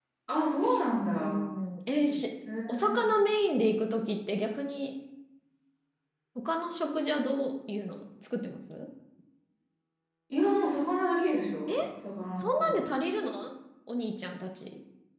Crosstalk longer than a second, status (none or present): none